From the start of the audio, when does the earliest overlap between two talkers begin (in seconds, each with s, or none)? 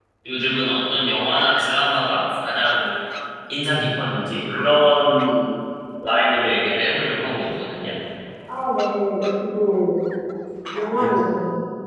none